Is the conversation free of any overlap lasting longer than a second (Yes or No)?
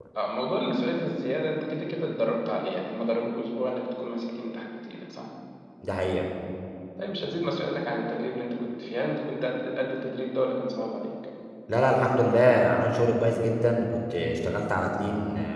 Yes